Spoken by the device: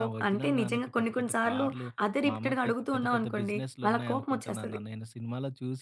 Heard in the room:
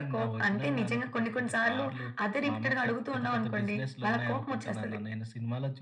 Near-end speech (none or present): none